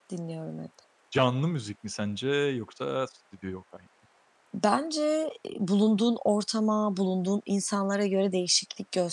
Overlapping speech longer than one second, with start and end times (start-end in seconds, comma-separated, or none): none